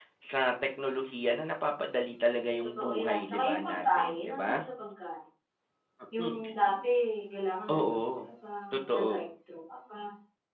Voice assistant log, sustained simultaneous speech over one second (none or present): present